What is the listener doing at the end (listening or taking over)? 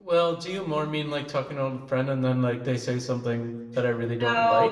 taking over